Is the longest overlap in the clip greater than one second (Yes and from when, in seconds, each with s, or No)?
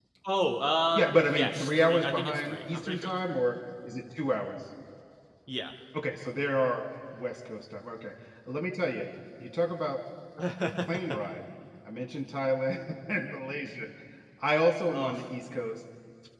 Yes, from 0.9 s